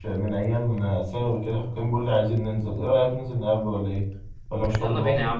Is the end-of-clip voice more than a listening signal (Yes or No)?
Yes